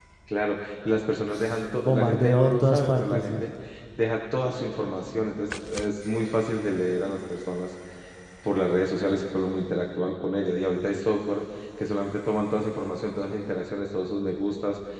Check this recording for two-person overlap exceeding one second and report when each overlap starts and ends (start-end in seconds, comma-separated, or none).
1.8-3.4